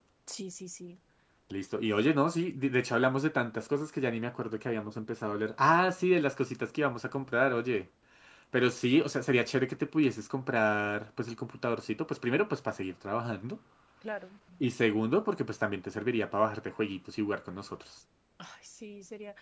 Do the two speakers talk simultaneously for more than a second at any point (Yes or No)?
No